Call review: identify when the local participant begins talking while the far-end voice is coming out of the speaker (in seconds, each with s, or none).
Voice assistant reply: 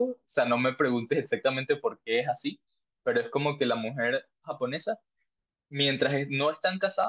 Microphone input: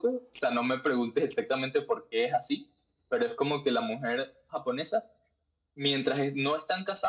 none